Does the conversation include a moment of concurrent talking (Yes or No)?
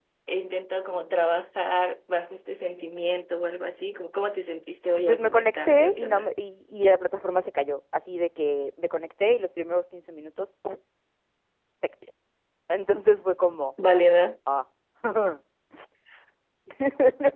Yes